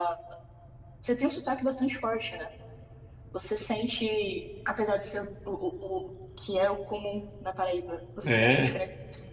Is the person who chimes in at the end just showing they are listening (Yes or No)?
Yes